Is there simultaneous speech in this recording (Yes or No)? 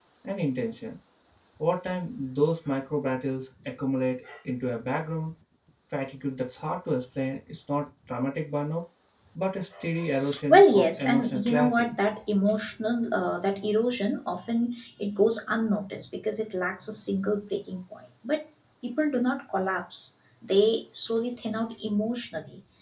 Yes